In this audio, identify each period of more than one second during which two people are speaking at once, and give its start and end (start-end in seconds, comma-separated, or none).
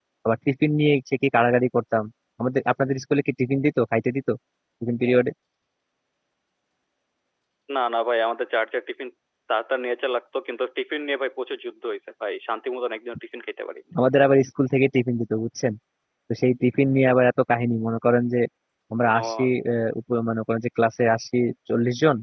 none